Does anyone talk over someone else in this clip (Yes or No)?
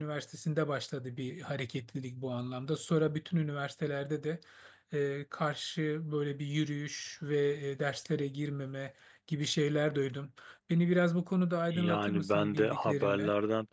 Yes